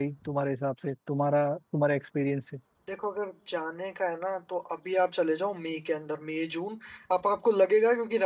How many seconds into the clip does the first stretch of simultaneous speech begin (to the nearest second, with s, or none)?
none